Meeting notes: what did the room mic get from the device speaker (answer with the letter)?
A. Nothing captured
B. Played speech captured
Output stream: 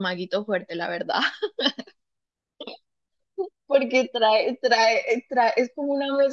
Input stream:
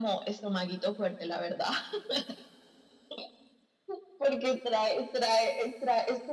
B